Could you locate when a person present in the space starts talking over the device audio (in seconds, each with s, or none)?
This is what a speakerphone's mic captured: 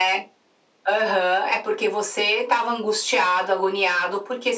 none